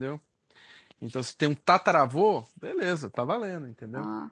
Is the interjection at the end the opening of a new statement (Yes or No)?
No